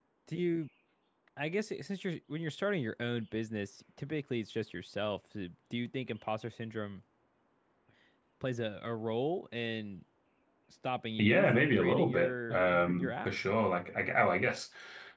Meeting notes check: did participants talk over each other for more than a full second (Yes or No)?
Yes